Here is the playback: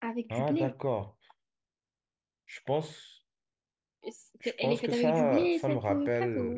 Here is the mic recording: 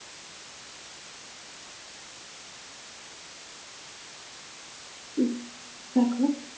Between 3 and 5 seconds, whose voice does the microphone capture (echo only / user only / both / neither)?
neither